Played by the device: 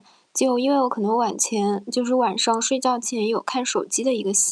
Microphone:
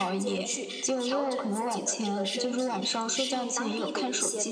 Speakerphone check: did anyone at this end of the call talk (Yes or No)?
Yes